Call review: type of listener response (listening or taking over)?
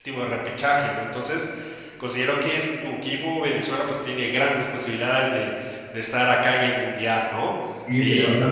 taking over